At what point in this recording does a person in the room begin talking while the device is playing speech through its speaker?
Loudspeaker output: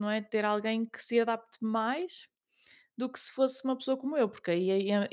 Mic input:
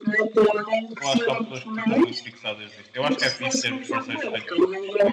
1.0 s

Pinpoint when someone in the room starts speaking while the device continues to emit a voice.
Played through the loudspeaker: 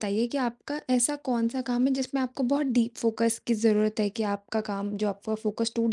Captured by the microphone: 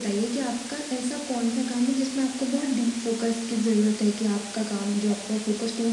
none

